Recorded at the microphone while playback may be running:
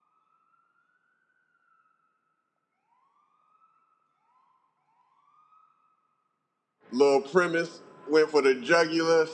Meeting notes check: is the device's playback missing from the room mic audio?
Yes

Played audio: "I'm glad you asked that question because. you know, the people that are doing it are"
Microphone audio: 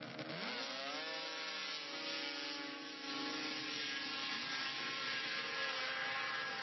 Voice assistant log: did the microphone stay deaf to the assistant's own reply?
Yes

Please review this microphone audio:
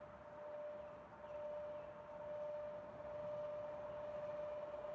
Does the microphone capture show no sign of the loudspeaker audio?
Yes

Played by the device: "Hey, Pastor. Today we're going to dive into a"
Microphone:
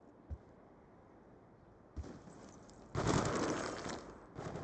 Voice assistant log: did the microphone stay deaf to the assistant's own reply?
Yes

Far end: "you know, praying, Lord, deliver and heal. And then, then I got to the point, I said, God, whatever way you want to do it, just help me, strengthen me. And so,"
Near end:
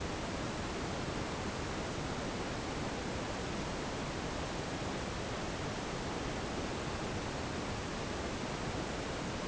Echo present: No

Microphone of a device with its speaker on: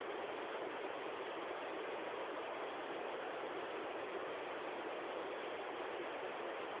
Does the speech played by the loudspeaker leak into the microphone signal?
No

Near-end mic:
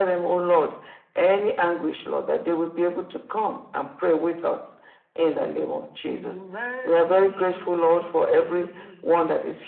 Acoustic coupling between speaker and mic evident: Yes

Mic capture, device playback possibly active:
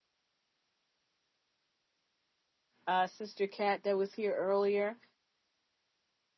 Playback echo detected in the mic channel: No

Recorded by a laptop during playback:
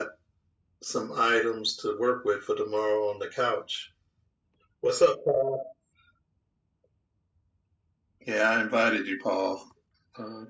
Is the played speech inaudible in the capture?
No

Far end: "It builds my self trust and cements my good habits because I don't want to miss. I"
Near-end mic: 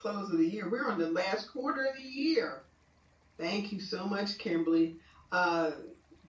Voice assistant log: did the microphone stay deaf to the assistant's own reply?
Yes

